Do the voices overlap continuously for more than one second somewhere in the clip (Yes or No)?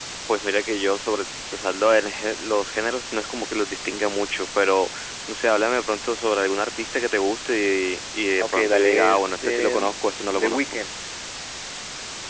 Yes